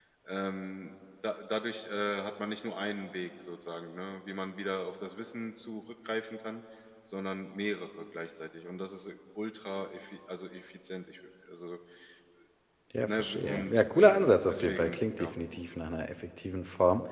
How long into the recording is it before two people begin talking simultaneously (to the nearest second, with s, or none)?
13 s